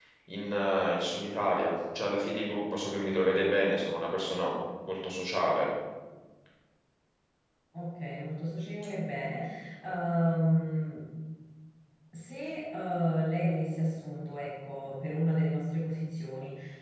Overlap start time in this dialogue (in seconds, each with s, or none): none